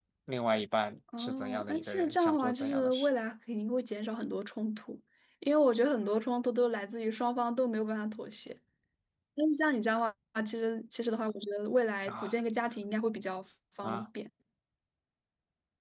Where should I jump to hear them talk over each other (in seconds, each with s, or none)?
1.2 s